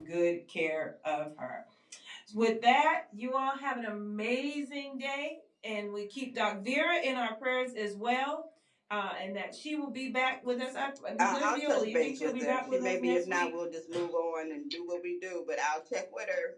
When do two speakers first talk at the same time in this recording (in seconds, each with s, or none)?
11.2 s